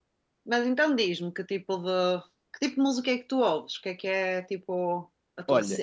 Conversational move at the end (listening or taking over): taking over